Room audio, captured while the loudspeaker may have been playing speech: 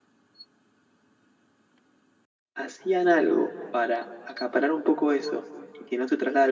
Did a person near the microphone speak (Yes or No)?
Yes